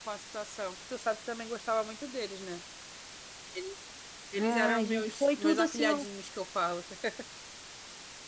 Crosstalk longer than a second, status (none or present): present